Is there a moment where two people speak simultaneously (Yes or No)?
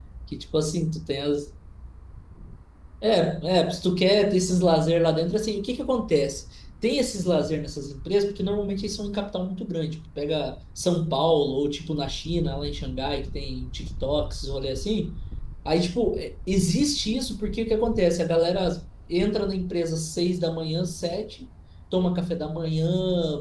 No